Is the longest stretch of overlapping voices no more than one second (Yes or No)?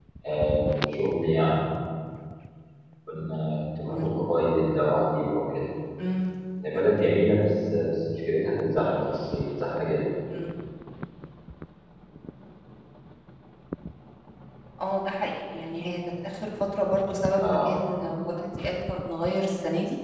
Yes